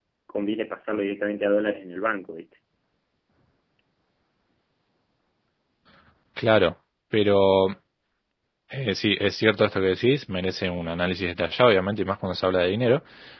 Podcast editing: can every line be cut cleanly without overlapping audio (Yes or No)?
Yes